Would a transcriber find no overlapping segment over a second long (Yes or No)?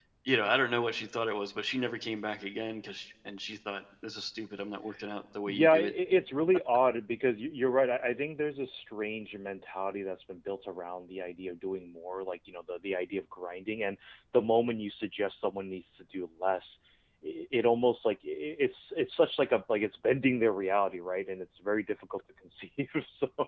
Yes